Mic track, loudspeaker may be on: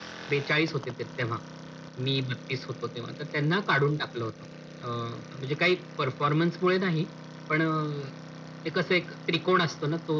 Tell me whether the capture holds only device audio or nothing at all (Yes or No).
Yes